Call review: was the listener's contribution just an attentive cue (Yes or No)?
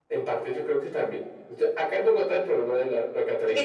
No